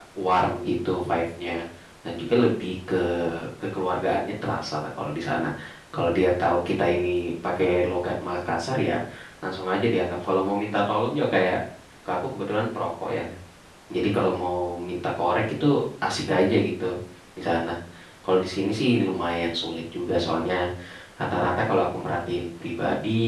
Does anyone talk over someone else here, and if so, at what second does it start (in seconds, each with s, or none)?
none